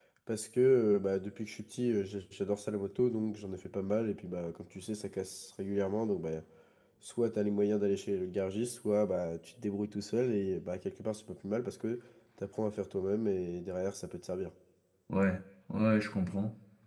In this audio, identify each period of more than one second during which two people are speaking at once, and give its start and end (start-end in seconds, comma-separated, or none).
none